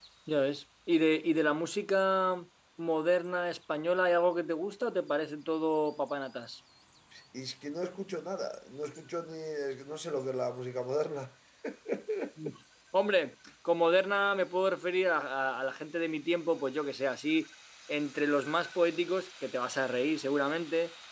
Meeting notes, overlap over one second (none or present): none